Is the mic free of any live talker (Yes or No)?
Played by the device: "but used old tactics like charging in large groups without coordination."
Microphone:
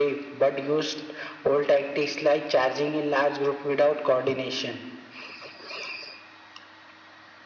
Yes